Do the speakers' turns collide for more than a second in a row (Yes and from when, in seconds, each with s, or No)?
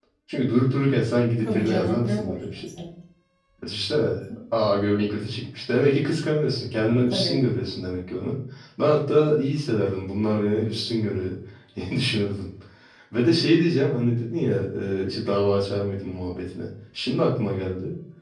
Yes, from 1.4 s